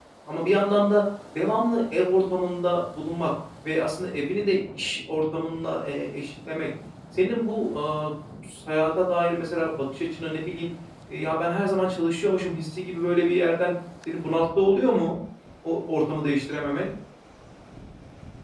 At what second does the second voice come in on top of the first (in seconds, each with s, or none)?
none